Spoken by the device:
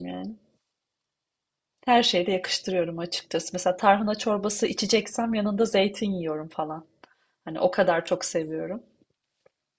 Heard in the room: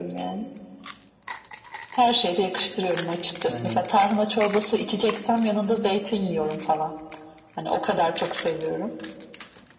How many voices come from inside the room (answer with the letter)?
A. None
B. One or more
B